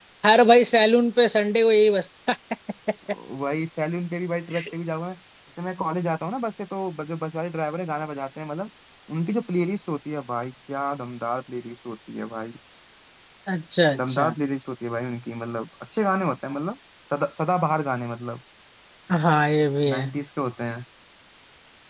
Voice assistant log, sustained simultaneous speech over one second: none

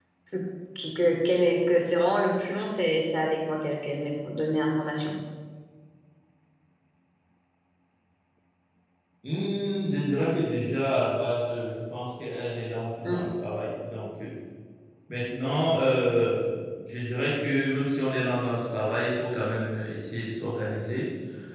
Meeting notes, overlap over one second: none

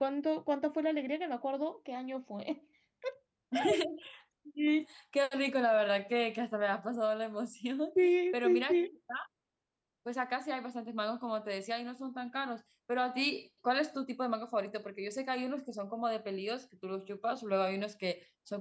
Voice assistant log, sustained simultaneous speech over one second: none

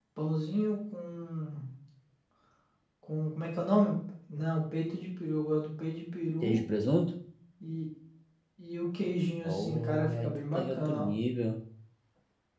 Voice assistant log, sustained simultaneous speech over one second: present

